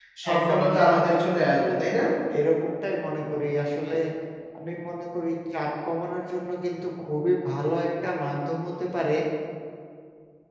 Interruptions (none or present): present